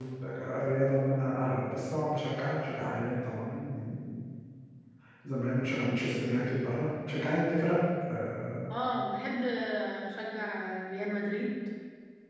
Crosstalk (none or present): none